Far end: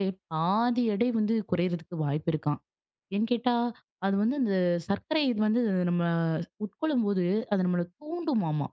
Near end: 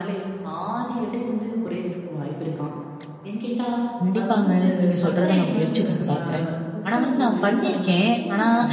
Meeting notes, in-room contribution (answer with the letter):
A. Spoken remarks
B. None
A